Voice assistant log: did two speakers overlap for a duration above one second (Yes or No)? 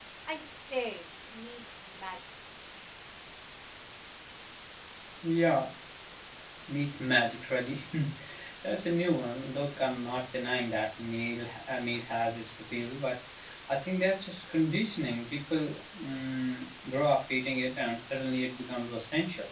No